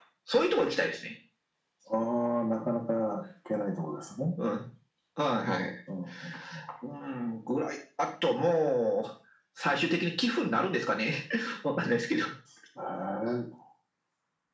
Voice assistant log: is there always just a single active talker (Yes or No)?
Yes